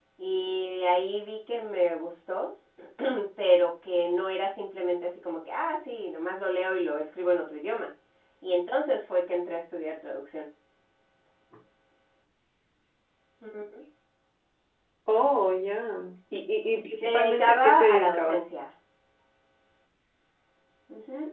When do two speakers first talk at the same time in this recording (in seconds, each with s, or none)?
17.0 s